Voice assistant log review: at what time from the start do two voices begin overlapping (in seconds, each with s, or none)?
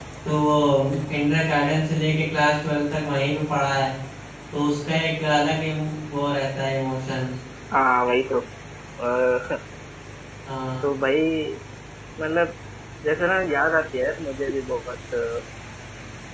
none